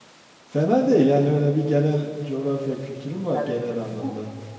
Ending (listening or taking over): taking over